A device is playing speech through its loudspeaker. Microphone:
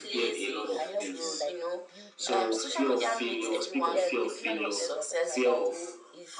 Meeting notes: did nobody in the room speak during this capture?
No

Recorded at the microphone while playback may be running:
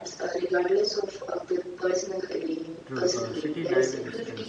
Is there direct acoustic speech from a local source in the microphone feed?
Yes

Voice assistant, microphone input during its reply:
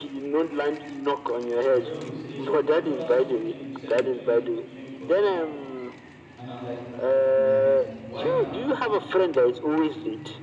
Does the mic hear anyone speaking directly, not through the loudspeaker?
Yes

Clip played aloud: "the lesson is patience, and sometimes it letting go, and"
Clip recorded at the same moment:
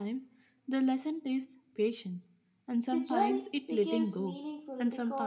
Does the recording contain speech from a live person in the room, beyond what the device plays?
Yes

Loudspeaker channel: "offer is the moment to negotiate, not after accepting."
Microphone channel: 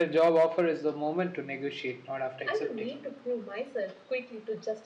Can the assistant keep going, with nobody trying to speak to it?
No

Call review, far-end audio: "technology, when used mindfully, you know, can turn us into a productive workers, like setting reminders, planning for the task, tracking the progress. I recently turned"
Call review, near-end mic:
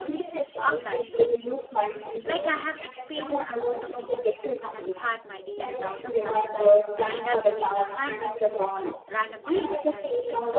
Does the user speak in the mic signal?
Yes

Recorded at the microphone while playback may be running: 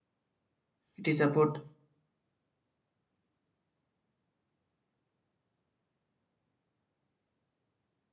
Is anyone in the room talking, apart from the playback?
Yes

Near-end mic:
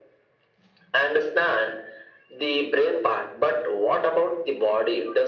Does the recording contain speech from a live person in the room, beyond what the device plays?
No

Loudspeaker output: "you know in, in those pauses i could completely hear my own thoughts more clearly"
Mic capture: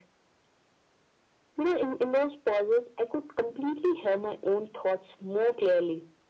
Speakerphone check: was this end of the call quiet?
Yes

